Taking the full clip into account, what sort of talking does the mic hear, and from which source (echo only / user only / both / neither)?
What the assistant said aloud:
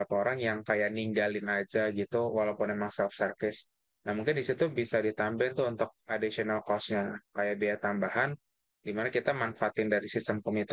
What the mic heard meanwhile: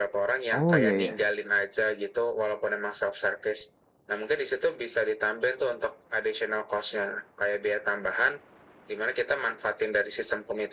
both